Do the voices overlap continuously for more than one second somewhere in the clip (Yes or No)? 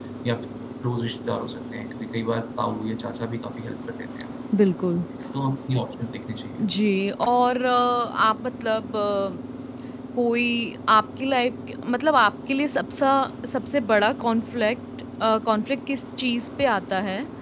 No